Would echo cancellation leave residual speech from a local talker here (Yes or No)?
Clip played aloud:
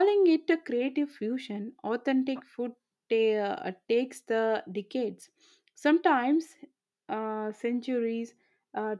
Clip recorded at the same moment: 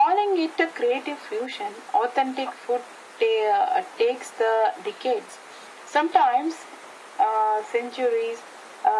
No